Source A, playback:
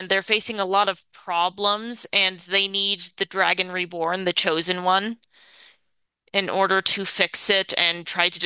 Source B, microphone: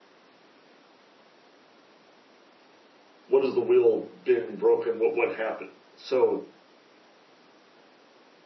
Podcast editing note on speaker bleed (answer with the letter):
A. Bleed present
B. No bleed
B